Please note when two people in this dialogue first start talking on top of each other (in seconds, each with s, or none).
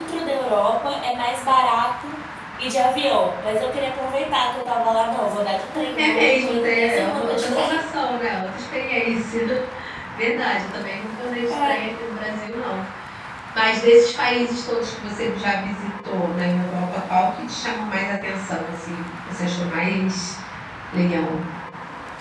5.9 s